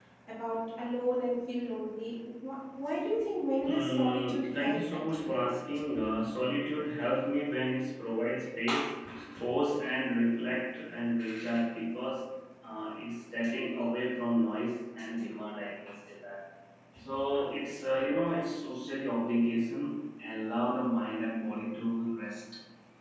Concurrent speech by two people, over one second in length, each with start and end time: 3.6-5.4

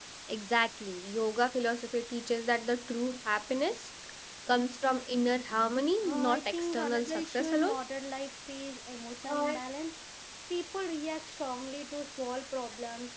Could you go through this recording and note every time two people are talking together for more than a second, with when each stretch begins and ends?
6.0-7.8

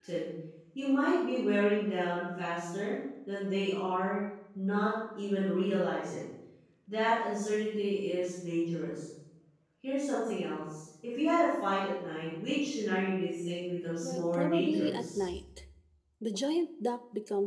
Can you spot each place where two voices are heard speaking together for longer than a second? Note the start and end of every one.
14.0-15.3

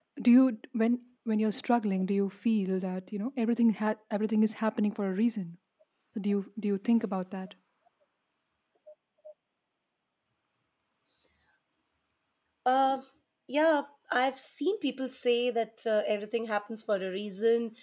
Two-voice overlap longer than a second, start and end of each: none

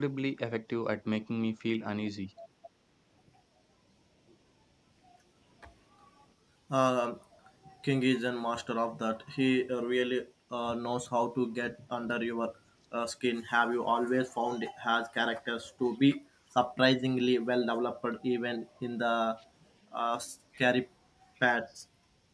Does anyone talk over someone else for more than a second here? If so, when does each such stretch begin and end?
none

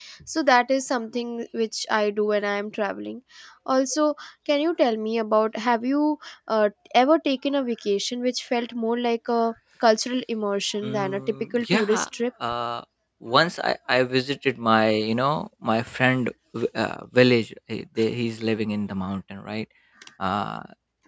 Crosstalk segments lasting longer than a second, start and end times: 10.8-12.1

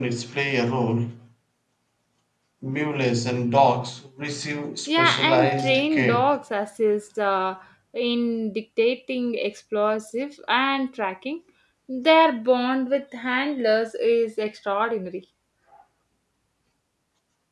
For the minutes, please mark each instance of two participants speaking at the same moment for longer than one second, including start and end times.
4.9-6.3

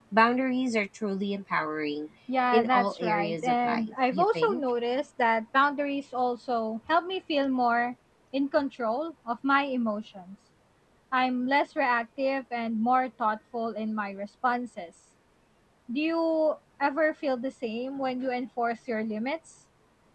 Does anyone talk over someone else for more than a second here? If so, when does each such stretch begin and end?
2.5-4.6

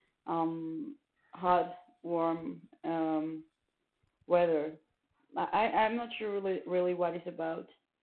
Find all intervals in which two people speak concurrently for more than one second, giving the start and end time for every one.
none

